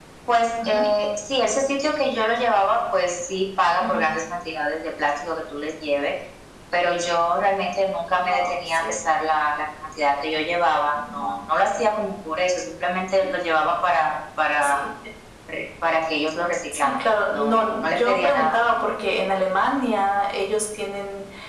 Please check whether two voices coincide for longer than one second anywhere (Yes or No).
Yes